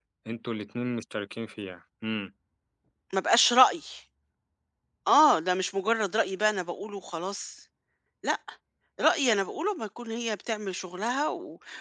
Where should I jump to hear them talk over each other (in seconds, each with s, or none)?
none